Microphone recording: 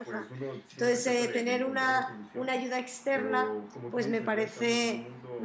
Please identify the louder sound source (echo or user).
user